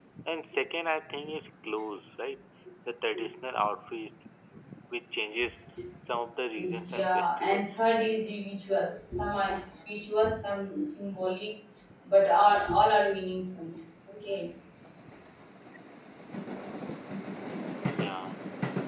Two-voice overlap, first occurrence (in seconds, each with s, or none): 6.6 s